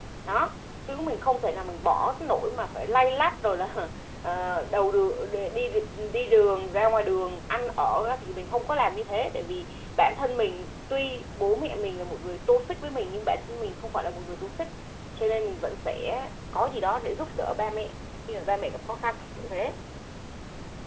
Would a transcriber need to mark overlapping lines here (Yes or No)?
No